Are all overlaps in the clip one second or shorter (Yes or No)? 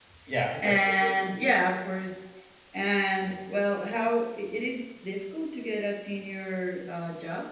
No